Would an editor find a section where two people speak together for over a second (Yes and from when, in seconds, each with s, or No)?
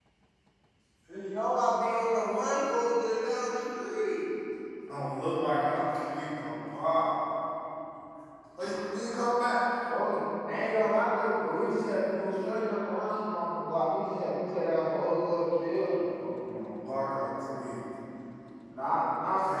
No